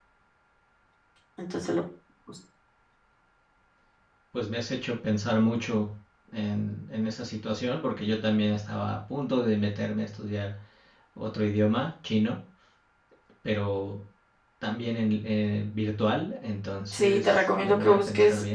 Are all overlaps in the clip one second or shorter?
No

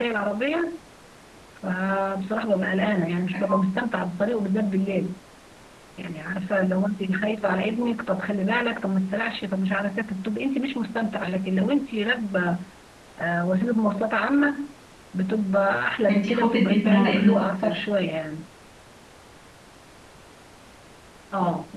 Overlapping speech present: Yes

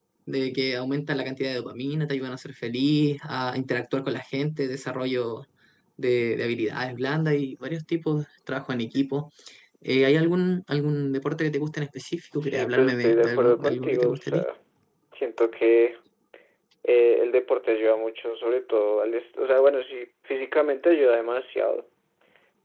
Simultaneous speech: Yes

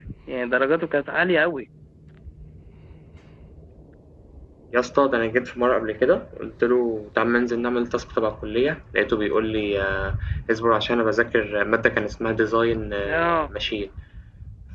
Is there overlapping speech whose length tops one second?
No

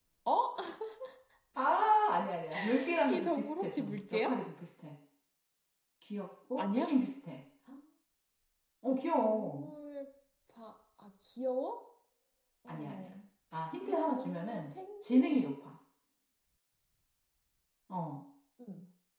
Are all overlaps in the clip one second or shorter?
No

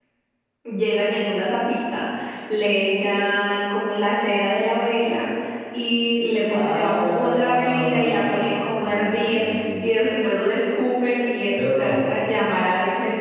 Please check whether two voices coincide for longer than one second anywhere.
Yes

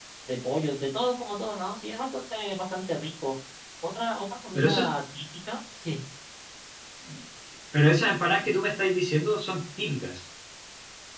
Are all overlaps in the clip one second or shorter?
Yes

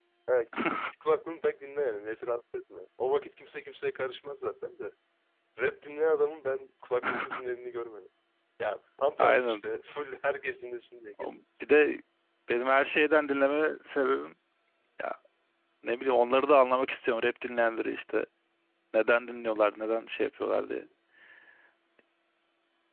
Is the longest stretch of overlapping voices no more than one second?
Yes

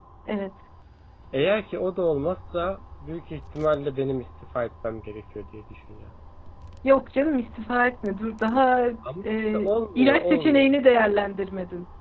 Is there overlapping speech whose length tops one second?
Yes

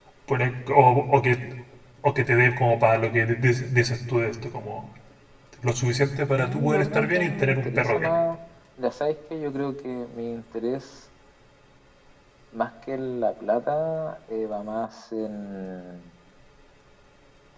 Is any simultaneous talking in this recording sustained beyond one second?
Yes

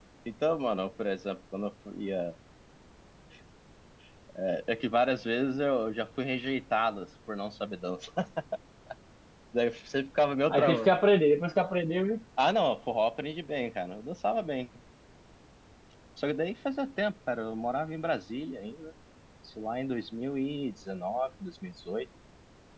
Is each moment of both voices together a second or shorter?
Yes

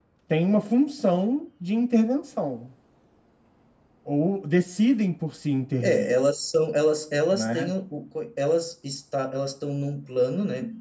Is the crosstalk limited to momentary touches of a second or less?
Yes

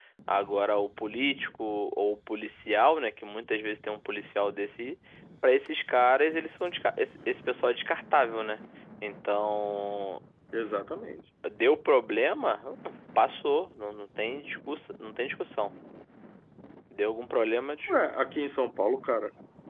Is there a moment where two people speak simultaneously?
No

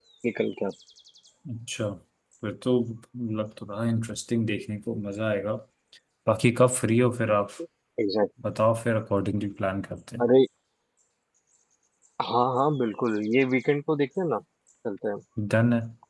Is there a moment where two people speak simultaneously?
No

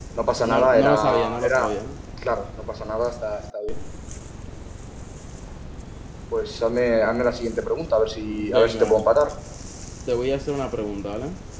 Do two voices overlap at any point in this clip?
Yes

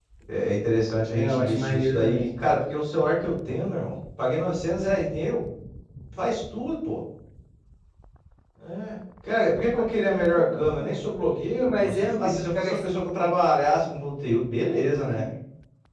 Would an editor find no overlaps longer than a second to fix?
No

